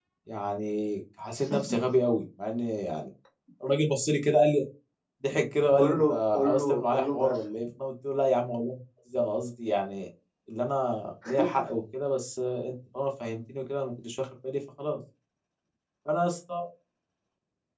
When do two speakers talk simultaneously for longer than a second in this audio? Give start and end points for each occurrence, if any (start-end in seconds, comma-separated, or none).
5.8-7.4